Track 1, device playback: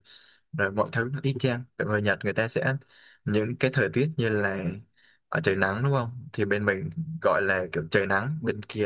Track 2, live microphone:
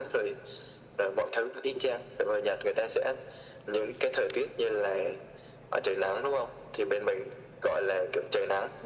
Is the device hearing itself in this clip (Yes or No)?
Yes